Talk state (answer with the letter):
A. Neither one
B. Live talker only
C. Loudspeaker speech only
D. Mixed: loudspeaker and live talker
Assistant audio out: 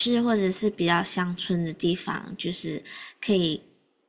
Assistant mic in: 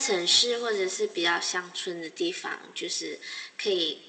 C